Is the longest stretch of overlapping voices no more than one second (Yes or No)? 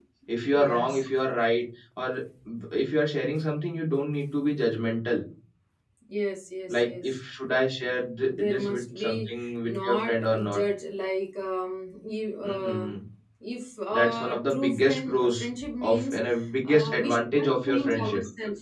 No